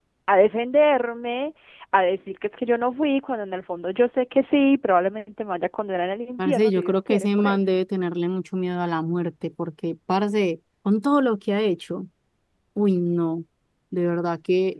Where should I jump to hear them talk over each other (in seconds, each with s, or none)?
6.4 s